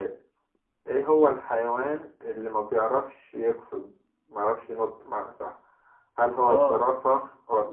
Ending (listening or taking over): listening